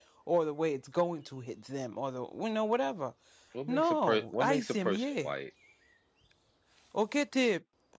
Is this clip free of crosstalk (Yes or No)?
No